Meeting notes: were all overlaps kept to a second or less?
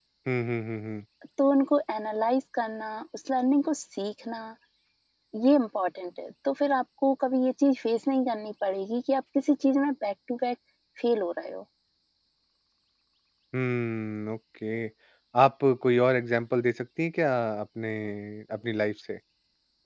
Yes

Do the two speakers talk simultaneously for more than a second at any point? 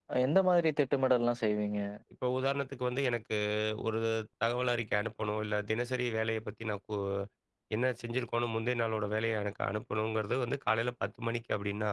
No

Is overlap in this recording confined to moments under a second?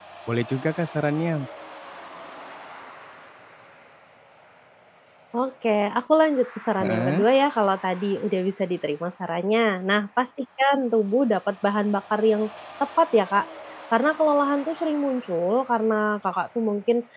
Yes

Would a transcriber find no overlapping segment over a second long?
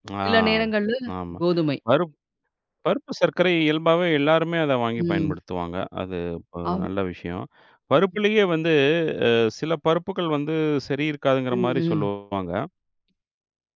Yes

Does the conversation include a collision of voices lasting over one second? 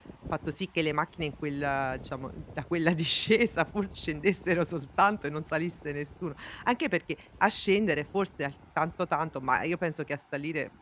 No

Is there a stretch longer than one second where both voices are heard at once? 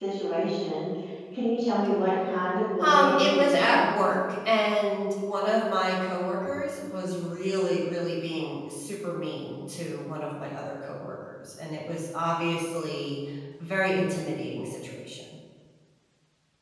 Yes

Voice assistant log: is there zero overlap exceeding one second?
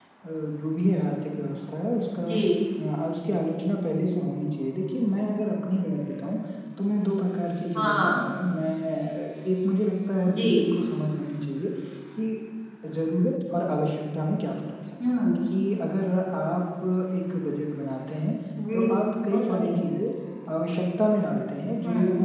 Yes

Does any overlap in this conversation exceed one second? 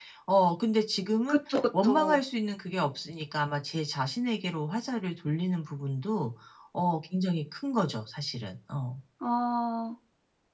No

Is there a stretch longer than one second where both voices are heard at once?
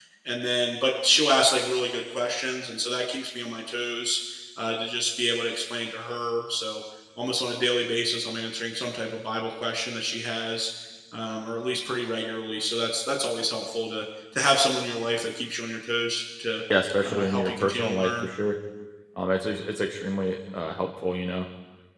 Yes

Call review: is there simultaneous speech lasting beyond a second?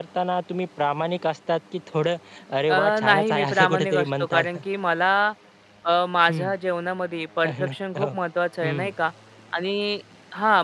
Yes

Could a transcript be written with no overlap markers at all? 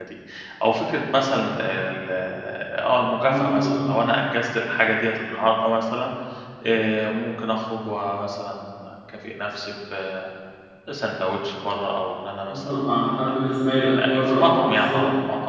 No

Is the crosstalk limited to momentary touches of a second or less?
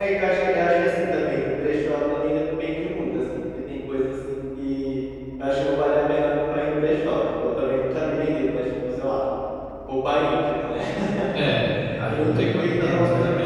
No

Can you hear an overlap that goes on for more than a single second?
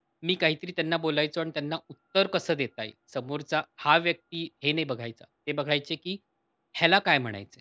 No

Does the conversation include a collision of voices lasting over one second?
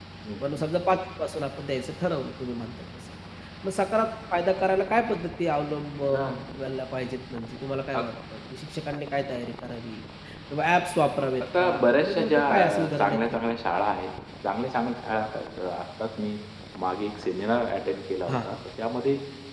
Yes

